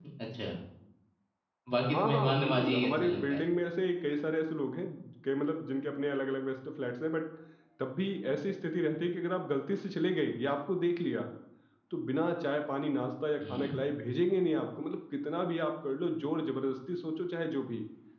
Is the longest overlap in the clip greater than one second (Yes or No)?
Yes